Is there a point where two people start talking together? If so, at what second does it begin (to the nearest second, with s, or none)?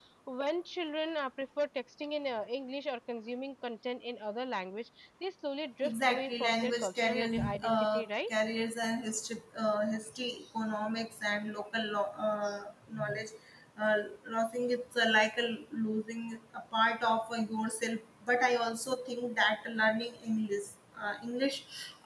6 s